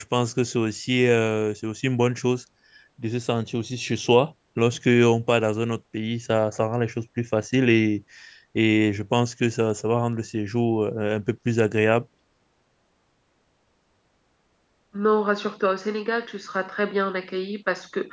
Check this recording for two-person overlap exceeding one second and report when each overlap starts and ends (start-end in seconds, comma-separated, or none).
none